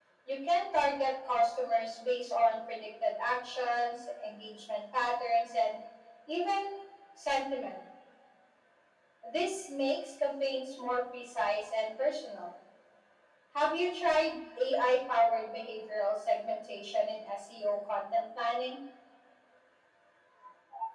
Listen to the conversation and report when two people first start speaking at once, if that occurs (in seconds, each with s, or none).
none